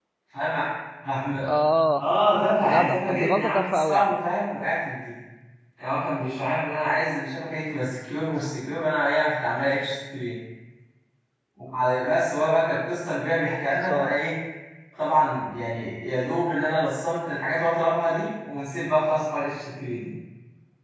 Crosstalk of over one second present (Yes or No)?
Yes